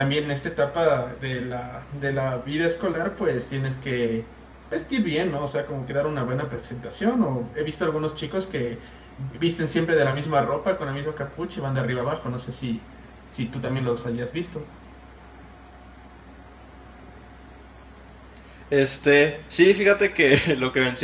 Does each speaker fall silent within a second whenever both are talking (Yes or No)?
Yes